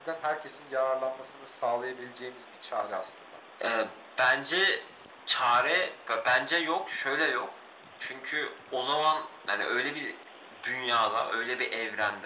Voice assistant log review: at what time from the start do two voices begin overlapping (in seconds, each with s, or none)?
none